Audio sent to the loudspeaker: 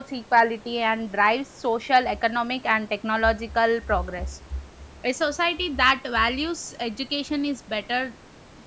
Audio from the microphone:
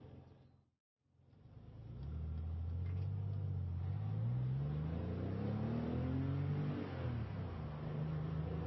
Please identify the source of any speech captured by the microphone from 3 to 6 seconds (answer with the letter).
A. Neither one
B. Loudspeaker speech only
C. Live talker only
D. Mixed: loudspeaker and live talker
A